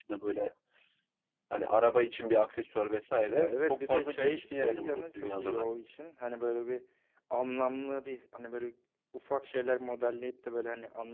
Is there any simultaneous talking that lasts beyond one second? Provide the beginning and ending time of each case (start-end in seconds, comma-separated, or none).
3.3-5.7